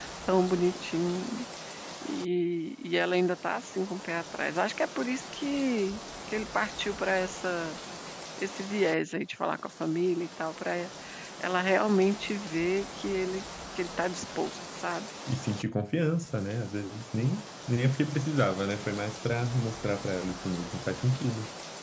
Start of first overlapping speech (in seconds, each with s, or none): none